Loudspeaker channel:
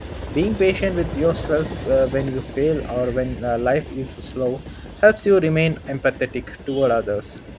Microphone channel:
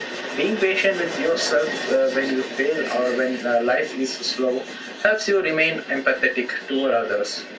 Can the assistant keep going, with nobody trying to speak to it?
Yes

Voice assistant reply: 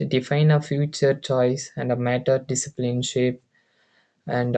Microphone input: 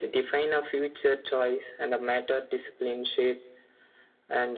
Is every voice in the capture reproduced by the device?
Yes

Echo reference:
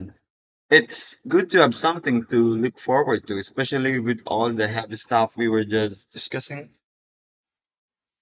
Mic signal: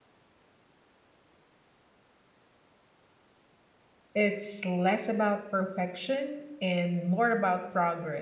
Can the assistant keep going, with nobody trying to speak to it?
No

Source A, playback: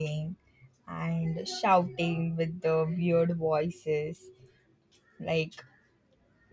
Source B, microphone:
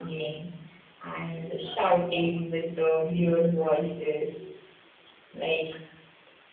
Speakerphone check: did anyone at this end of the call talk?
No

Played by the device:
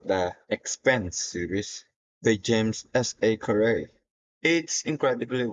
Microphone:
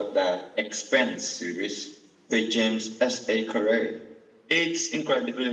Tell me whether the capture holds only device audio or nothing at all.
Yes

